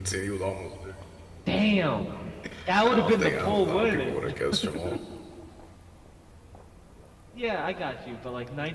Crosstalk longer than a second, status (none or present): present